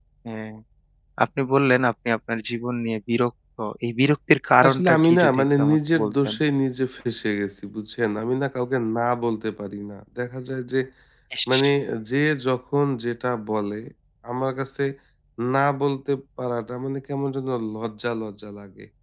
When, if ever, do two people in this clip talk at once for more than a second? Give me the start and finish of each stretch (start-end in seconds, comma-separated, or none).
4.6-6.3